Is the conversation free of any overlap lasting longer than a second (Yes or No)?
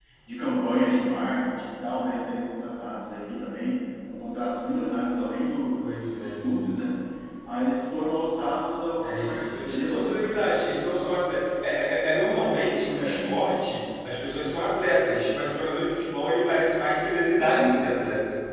No